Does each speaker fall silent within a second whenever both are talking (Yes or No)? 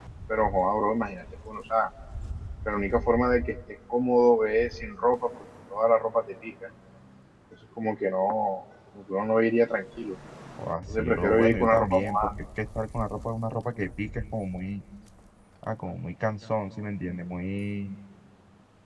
No